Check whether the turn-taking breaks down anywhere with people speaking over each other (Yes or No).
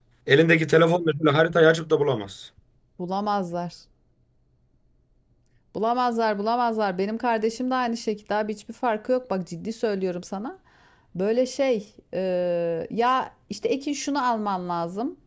No